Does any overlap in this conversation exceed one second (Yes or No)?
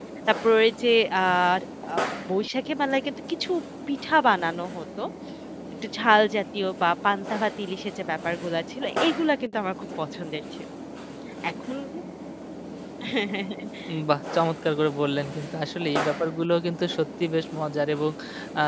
No